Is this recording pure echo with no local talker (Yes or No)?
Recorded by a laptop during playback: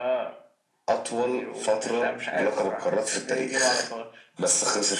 Yes